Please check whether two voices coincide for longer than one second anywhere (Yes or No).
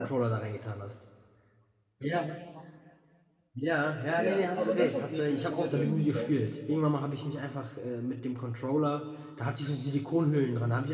Yes